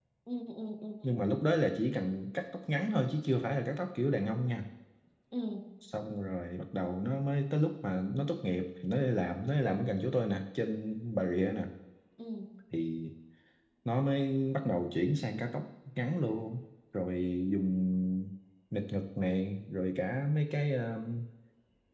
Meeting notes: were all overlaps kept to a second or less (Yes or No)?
Yes